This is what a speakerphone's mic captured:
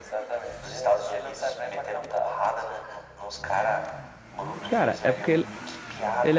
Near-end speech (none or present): present